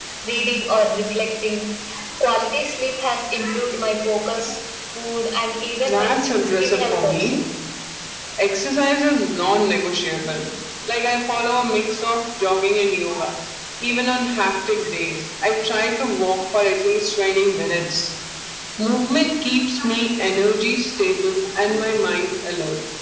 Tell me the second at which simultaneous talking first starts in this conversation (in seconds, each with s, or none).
5.8 s